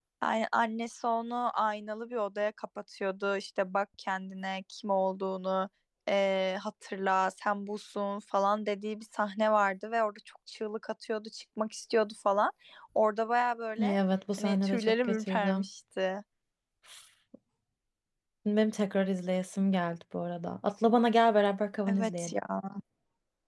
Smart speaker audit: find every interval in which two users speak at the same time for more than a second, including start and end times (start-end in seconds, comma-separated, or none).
14.4-15.7